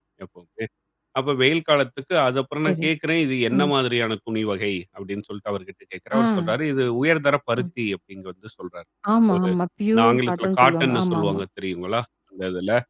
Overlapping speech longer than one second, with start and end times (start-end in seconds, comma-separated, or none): 9.9-11.4